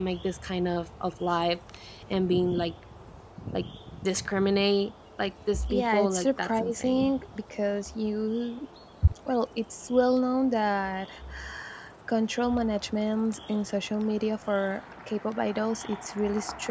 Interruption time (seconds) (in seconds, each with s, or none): 5.5 s